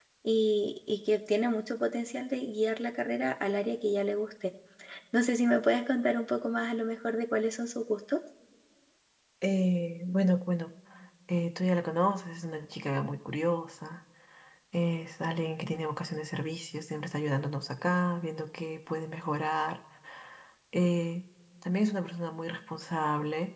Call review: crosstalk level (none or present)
none